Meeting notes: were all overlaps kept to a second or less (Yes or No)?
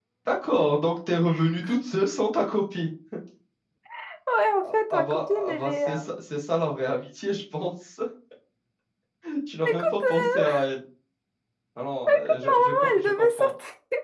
No